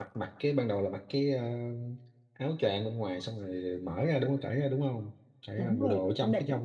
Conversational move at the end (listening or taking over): taking over